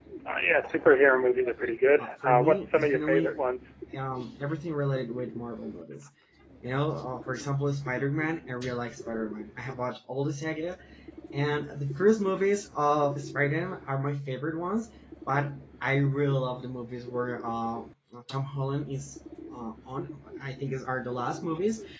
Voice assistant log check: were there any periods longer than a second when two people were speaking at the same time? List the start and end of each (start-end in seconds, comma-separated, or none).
2.0-3.3